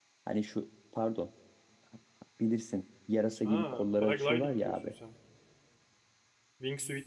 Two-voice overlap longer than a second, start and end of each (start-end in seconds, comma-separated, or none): 3.4-4.9